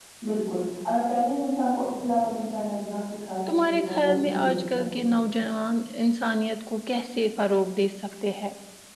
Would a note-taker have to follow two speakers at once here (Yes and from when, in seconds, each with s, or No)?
Yes, from 3.5 s